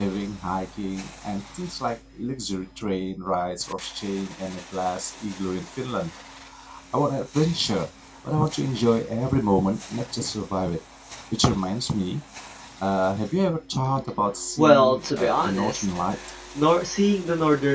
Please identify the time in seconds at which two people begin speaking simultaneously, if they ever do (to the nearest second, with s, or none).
15 s